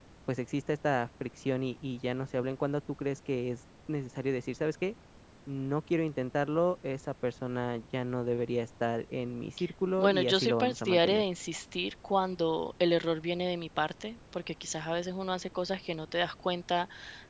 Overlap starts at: 10 s

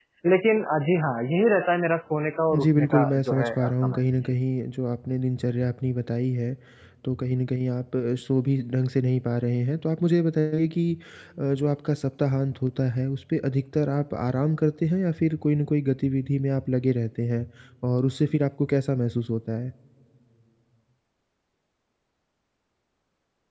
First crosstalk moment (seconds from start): 3 s

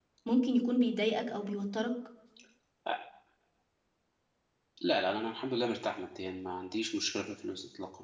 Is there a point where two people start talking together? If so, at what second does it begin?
none

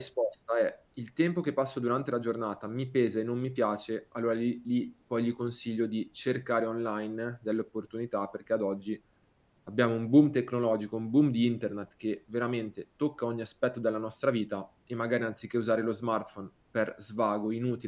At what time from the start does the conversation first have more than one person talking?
none

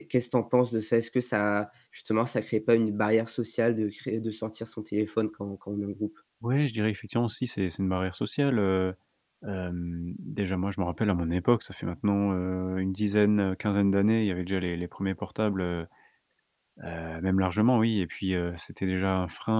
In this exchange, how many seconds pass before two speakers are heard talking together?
none

